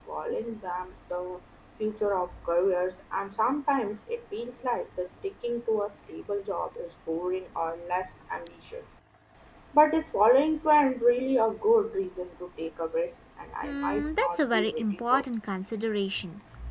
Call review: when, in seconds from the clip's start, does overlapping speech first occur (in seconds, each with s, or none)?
13.6 s